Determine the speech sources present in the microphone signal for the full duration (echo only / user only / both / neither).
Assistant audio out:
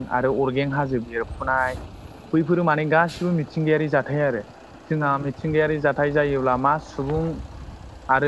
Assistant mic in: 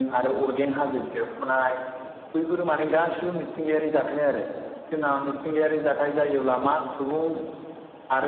echo only